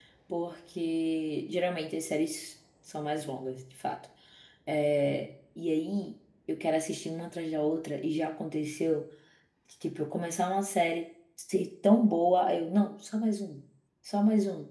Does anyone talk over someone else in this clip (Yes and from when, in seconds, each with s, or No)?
No